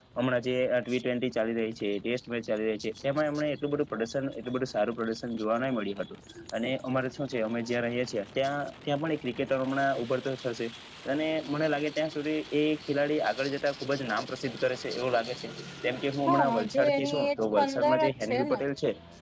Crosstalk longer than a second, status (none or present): present